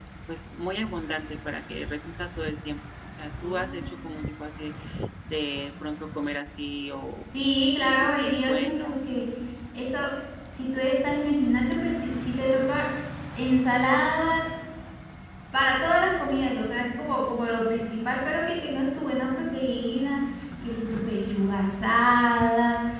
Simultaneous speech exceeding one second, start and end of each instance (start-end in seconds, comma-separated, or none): 7.8-9.0